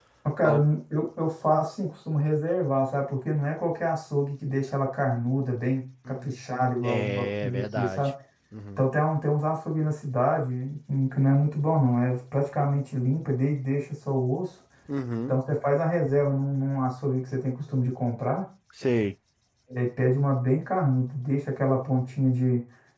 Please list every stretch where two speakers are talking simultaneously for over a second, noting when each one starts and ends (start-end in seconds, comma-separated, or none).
6.8-8.1